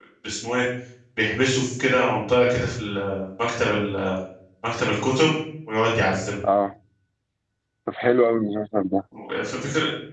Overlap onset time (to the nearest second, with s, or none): none